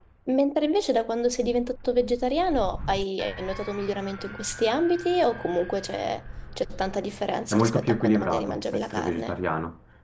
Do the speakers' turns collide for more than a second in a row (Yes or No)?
Yes